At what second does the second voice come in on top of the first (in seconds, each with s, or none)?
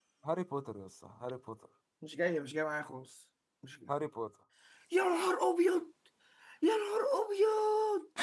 none